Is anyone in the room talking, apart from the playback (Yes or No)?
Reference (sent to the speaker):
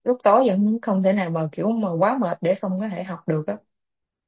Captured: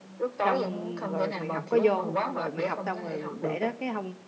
Yes